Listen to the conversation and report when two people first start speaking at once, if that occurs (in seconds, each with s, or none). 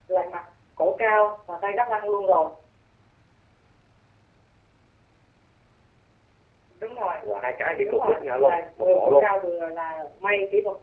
7.8 s